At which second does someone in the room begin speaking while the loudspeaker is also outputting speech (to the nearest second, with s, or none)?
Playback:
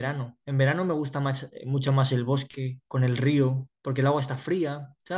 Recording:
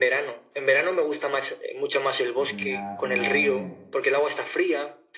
2 s